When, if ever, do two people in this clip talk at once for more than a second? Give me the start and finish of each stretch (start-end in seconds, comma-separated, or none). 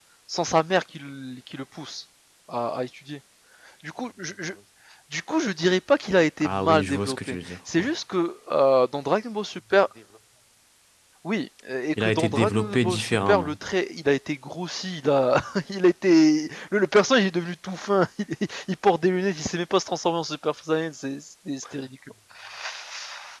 6.4-7.9, 12.0-13.5